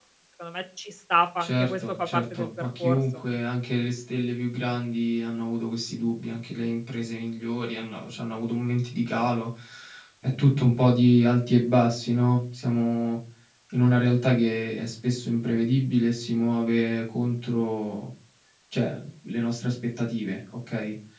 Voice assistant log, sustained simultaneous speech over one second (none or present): present